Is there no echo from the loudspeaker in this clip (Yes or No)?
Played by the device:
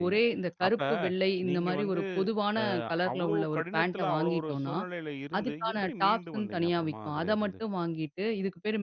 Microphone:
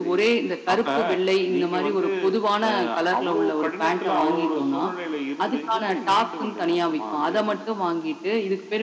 No